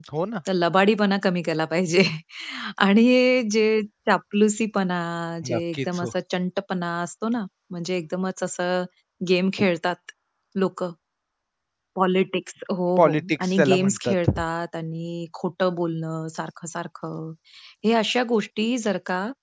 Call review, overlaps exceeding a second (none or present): present